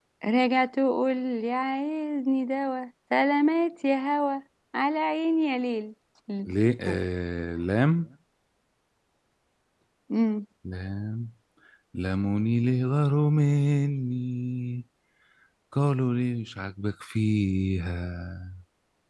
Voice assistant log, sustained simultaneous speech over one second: none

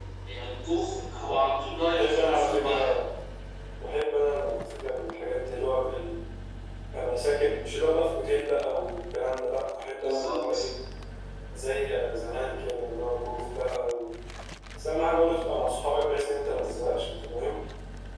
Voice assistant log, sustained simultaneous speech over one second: present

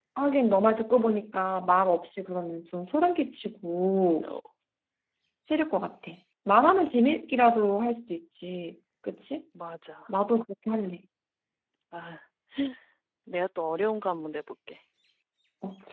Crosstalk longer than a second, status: none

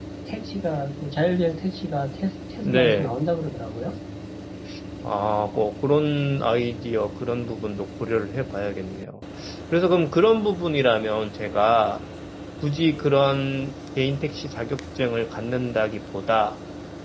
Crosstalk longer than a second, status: none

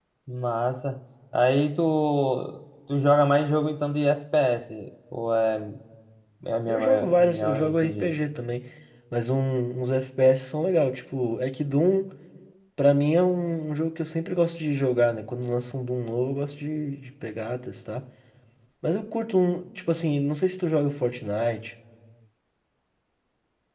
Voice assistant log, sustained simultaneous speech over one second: present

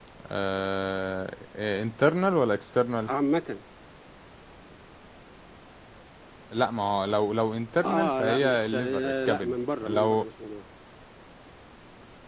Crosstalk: present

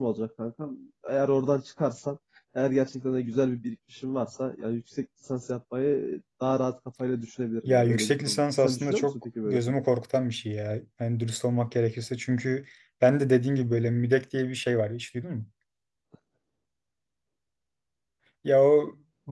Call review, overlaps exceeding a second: present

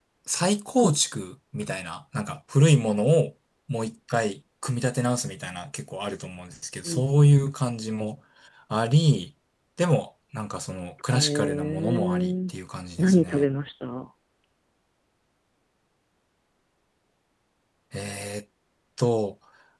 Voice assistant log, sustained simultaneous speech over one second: present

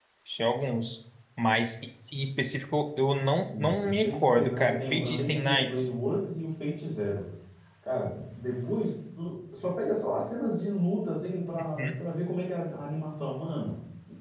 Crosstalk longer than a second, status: present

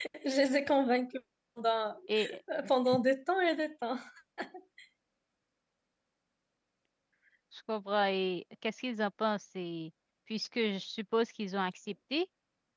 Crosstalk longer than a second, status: none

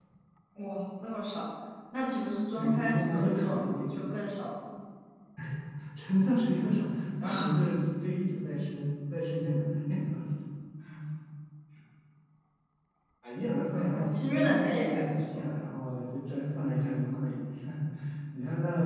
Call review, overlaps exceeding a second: present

